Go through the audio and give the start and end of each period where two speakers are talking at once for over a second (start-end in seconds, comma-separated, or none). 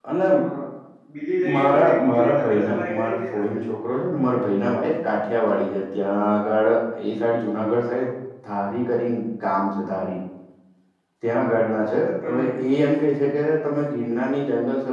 1.6-3.5